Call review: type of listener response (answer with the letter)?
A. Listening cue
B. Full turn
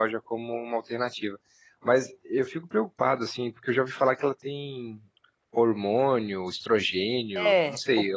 B